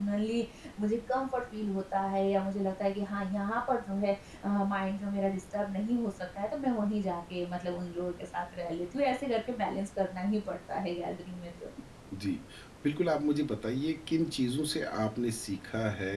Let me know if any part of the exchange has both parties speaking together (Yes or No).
No